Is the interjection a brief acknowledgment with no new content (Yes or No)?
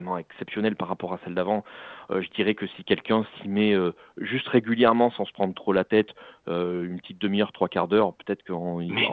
Yes